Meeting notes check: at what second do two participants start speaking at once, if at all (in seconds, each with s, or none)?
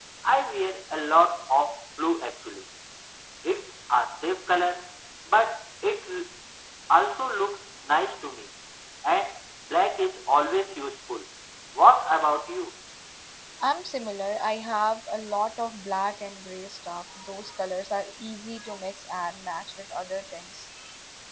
none